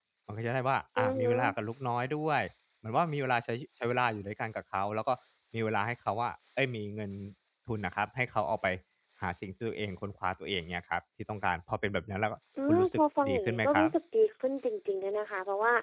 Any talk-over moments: Yes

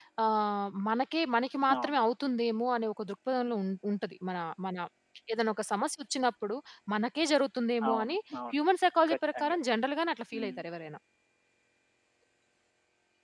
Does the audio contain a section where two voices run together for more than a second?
No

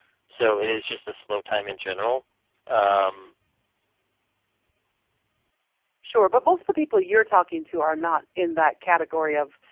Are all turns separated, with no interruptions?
Yes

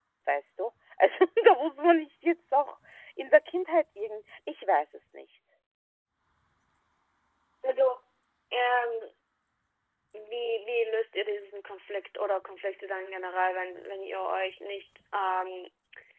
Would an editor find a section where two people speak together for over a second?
No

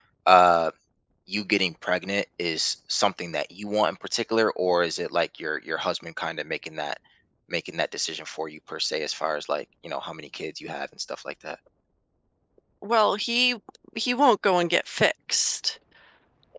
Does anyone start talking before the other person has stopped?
No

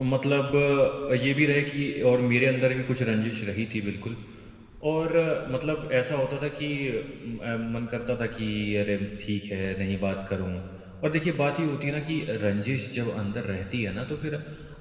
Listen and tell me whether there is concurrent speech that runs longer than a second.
No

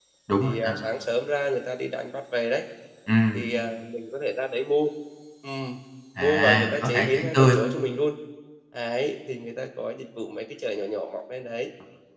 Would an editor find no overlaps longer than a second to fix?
No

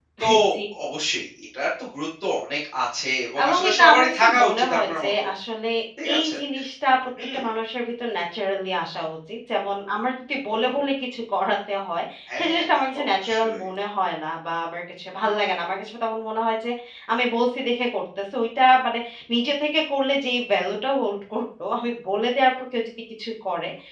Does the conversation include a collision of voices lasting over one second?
Yes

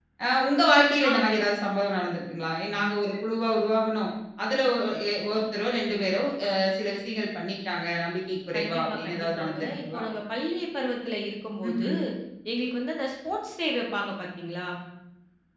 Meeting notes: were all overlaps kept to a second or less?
No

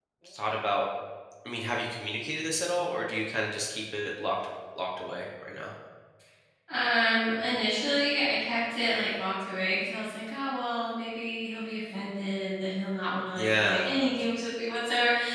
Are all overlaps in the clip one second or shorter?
Yes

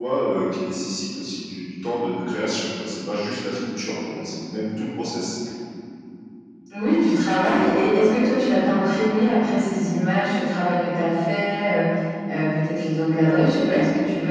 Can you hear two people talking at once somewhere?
No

